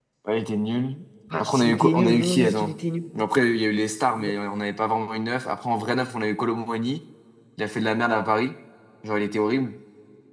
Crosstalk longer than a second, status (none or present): present